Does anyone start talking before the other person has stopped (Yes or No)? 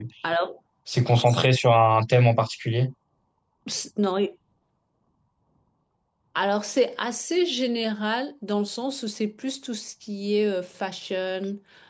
No